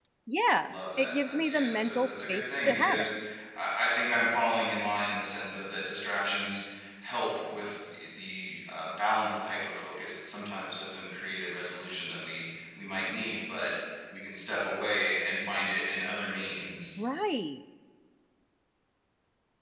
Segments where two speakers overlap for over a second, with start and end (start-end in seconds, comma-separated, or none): 0.6-3.1